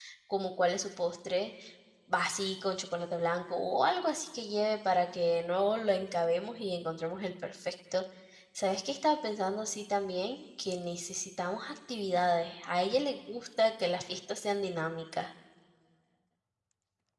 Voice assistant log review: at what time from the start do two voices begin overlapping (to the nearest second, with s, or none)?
none